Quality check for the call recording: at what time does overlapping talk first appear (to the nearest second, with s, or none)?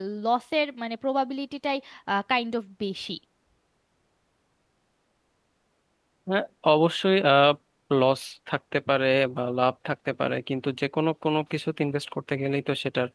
none